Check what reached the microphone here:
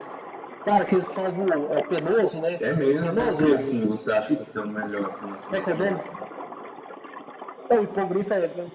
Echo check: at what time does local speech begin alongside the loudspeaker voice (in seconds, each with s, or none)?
none